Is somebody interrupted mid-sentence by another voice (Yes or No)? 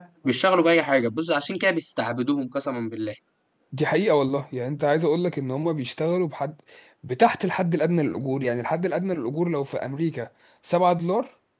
No